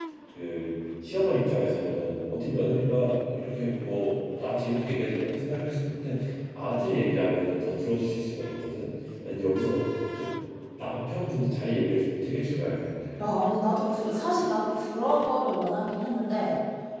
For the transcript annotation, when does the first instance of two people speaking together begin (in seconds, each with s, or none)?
none